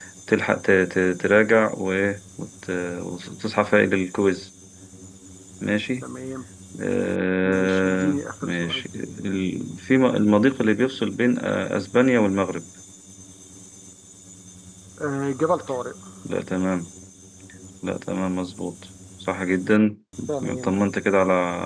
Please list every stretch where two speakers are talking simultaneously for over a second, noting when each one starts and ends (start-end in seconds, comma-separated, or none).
7.4-8.8